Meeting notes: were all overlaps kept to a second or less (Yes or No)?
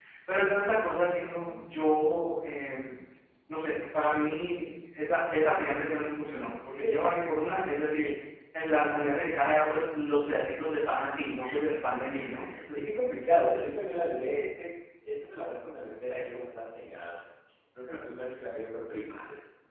Yes